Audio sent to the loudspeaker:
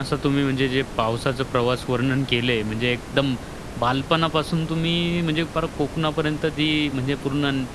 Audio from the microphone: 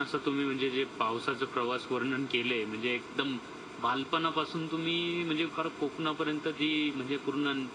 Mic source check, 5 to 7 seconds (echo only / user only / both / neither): echo only